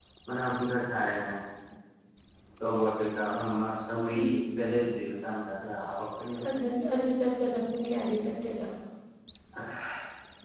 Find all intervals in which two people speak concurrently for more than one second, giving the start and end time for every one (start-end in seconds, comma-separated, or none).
none